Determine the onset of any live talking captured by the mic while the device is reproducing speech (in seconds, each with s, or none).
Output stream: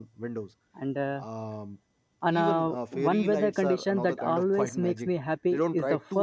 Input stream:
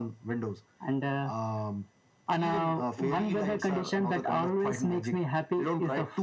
none